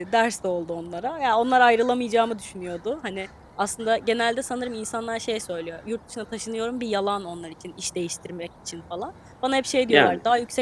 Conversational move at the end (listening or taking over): listening